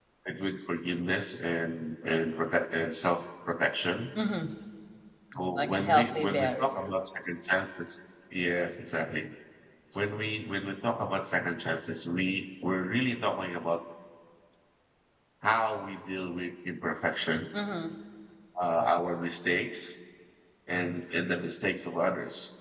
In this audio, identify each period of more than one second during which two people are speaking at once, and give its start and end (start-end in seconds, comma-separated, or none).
5.5-6.9